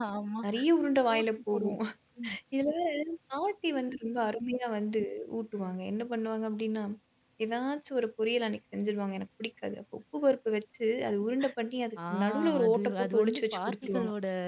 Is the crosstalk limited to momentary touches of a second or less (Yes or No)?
No